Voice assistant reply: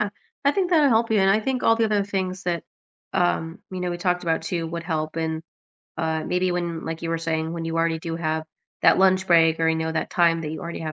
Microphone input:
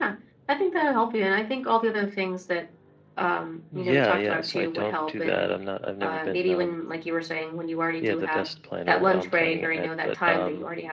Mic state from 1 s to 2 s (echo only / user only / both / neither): echo only